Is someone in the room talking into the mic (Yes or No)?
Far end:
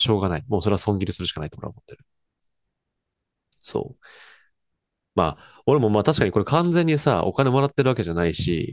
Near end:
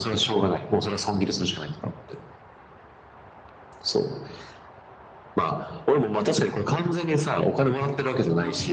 Yes